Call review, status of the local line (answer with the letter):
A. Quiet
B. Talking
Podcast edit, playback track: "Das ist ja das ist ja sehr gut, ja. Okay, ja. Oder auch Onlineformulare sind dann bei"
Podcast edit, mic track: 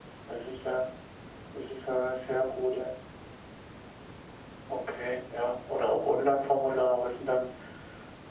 A